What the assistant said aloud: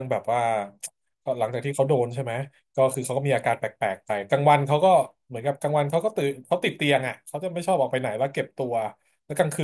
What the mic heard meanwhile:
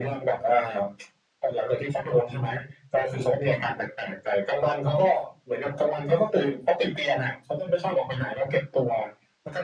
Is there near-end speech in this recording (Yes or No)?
No